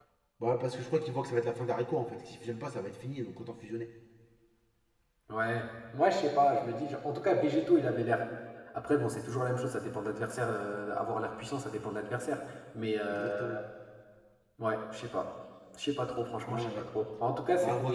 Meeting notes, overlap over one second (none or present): none